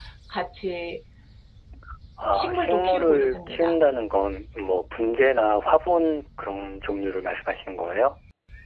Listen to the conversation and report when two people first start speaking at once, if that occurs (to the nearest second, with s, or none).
2 s